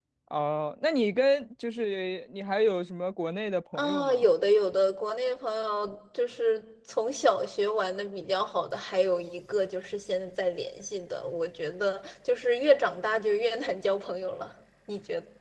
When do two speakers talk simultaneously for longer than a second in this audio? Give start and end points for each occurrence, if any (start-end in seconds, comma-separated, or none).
none